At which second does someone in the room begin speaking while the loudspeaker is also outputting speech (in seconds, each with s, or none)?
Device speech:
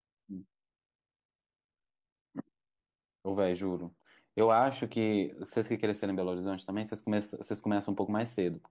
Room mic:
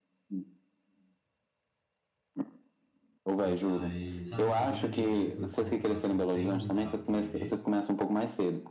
3.4 s